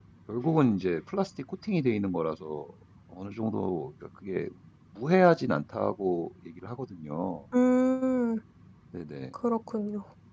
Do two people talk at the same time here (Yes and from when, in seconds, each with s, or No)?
No